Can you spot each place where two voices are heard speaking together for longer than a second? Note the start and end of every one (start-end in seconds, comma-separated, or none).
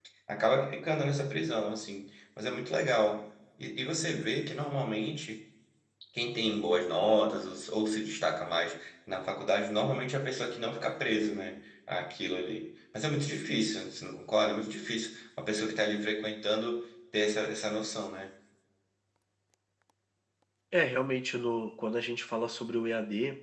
none